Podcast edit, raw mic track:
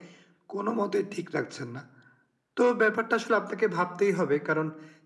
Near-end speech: none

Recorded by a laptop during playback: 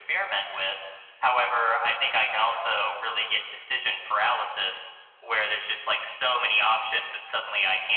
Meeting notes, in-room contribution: none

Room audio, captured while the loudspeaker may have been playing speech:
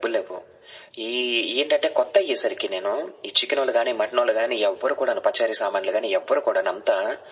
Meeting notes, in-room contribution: none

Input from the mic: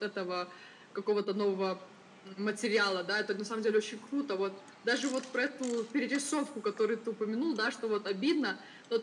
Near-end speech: none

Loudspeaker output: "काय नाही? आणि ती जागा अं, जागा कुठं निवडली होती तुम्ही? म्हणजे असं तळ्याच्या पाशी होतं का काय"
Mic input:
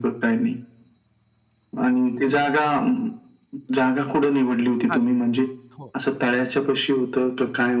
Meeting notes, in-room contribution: present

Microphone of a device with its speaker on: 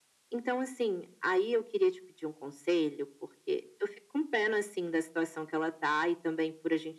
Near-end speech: none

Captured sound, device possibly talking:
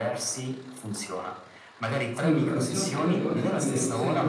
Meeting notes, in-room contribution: present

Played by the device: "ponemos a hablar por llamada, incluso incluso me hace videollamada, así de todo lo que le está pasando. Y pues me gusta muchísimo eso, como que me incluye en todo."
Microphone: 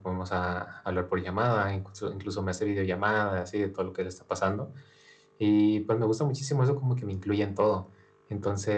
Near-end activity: none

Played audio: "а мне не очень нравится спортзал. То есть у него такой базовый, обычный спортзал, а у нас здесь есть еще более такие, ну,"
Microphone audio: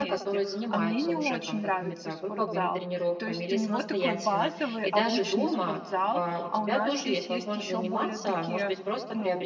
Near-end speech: present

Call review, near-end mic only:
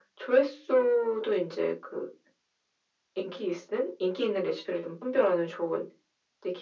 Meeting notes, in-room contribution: none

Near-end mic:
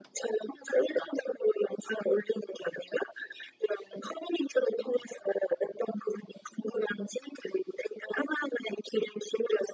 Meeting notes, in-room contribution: none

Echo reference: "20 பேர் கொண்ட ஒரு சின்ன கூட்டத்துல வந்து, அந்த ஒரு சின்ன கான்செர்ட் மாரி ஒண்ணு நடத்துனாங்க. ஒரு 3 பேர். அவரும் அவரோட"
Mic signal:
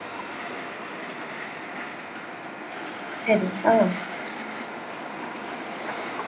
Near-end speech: present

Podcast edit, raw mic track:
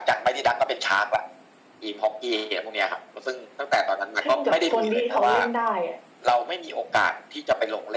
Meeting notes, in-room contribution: present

